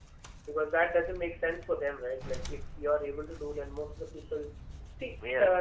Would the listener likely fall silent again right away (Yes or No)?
Yes